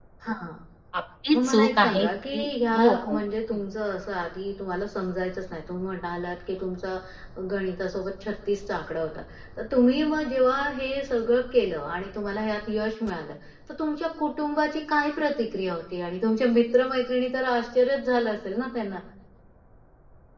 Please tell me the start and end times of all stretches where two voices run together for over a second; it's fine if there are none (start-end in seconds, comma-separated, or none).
1.3-3.2